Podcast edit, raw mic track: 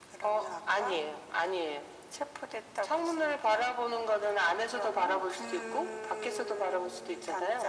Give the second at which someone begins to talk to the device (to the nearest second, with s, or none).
none